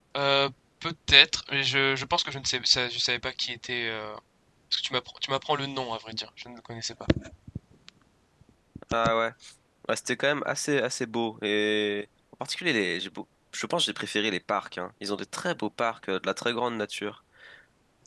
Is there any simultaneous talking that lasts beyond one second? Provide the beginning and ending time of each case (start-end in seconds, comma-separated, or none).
none